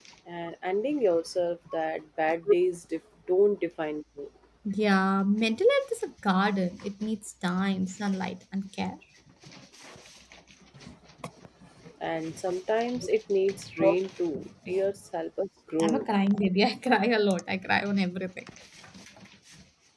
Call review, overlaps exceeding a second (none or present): none